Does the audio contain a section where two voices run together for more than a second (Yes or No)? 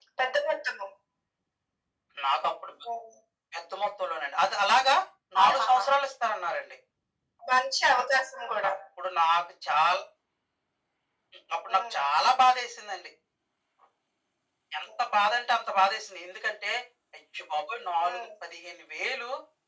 No